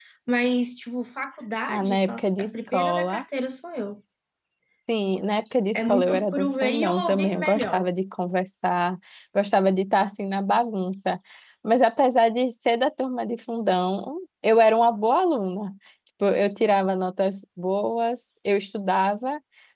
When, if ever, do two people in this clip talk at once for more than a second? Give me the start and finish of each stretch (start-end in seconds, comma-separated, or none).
1.7-3.2, 5.7-7.9